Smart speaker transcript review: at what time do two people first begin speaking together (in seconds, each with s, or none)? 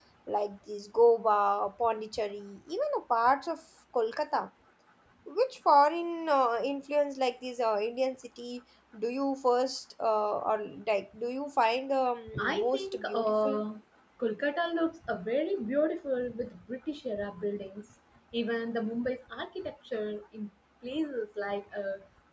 12.3 s